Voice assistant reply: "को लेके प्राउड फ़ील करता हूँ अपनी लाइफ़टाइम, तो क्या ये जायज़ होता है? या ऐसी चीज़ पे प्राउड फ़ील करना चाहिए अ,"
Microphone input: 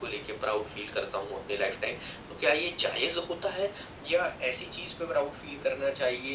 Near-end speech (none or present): none